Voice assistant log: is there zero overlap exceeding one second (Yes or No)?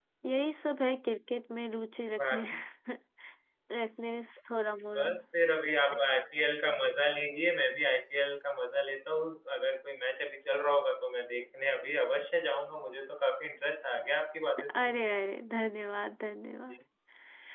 Yes